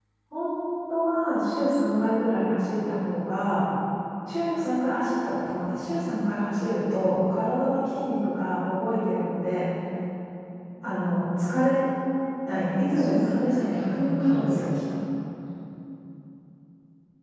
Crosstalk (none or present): present